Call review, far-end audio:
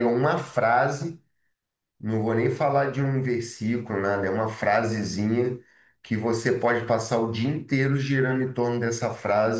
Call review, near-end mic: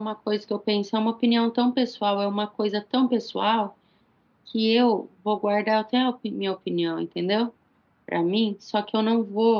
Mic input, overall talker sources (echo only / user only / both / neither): user only